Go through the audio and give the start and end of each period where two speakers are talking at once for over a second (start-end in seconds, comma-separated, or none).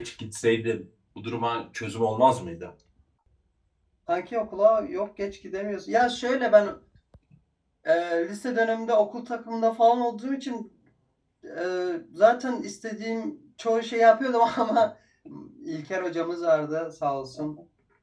none